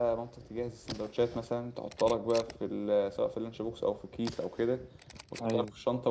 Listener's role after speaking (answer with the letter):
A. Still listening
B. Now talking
A